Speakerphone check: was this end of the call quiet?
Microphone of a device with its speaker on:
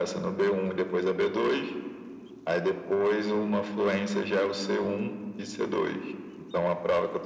Yes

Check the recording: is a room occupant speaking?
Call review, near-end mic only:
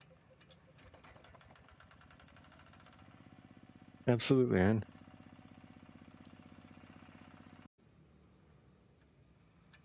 Yes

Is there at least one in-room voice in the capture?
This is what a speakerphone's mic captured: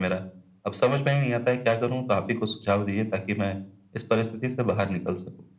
No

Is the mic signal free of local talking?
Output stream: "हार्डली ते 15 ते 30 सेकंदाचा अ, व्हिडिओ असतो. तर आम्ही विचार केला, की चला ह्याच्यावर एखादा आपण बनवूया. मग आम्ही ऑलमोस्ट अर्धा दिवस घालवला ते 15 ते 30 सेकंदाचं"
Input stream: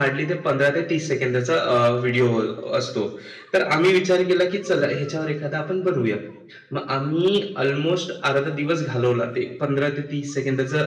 Yes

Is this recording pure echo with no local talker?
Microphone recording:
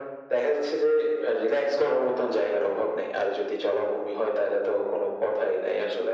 Yes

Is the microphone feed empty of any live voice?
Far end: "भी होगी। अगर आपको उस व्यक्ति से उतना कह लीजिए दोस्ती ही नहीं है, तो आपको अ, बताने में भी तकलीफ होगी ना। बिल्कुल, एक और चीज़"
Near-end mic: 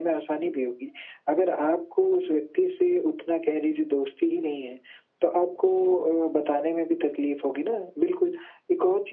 Yes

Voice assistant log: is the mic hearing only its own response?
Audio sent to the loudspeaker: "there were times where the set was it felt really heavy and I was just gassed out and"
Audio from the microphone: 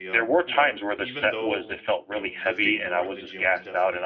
No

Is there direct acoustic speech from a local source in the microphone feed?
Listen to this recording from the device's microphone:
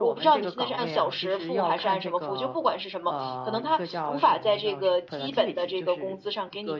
Yes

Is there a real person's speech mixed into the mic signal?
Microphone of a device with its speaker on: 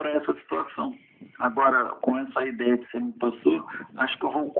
No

